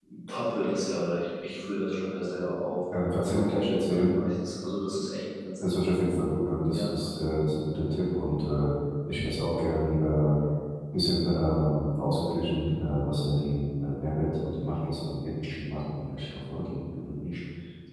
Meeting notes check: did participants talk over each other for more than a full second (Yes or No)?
No